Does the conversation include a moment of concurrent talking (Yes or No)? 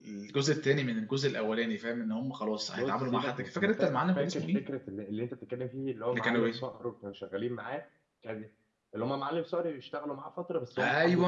Yes